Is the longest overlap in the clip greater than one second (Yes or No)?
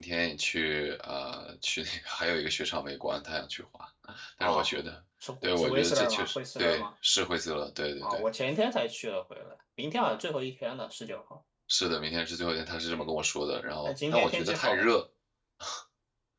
Yes